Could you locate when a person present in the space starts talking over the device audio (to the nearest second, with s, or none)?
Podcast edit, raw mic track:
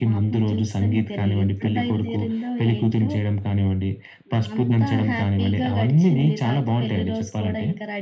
none